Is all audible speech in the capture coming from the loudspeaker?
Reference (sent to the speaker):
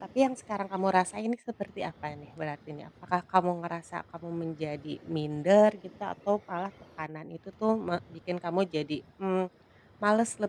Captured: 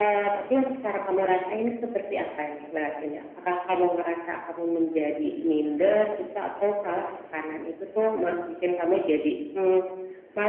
Yes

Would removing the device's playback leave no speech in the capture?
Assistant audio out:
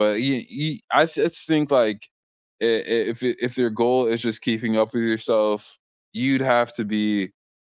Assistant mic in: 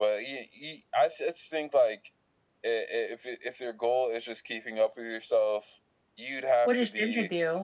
No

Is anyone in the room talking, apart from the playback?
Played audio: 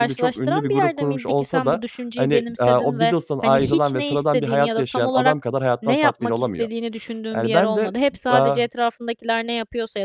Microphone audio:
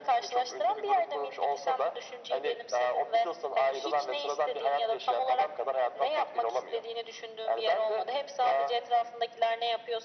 No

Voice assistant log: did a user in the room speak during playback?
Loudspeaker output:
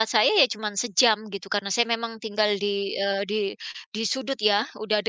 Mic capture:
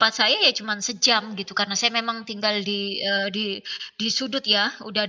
No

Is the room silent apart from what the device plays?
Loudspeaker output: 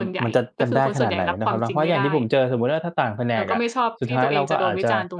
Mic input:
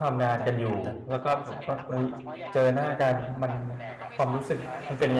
No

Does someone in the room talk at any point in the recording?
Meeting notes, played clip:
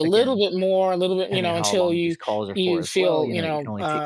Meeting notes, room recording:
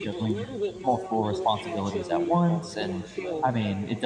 Yes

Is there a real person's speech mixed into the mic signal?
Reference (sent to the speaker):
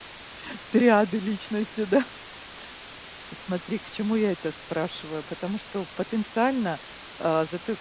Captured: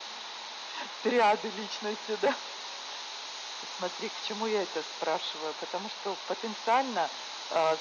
No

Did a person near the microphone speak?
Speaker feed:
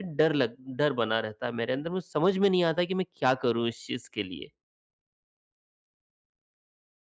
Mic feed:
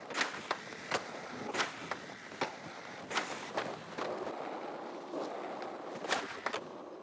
No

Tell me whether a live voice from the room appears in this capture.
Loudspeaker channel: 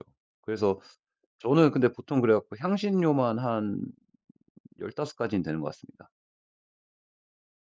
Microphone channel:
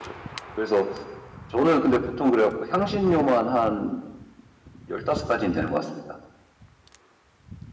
No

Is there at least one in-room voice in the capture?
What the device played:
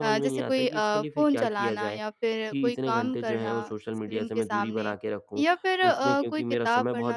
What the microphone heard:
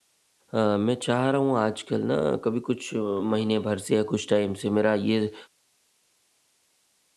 Yes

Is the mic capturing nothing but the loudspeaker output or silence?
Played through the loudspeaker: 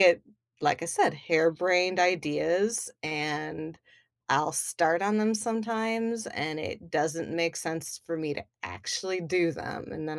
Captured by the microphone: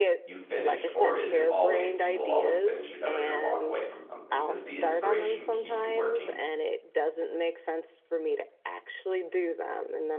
No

